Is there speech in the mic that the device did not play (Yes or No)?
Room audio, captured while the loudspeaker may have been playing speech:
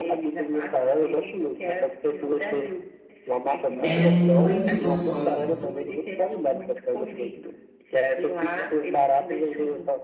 Yes